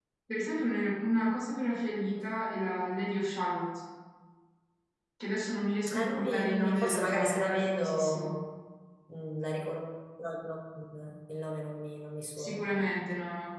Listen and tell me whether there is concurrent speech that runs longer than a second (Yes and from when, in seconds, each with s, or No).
Yes, from 5.9 s